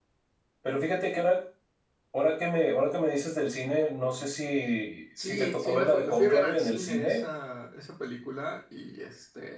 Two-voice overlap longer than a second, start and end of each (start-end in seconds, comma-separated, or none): 5.2-7.3